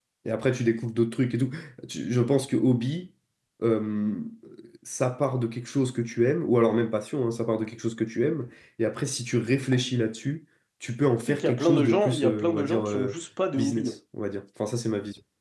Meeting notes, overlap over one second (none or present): present